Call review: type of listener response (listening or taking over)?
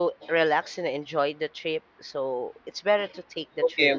taking over